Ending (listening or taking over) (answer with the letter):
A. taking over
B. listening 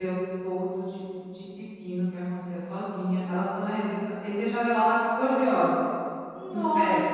B